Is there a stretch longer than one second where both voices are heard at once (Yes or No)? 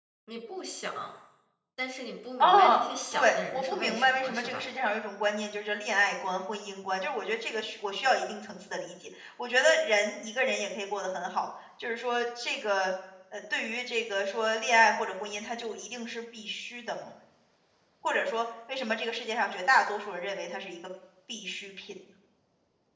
Yes